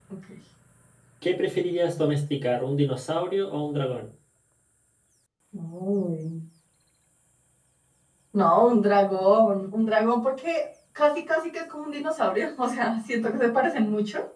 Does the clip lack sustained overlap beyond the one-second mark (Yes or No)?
Yes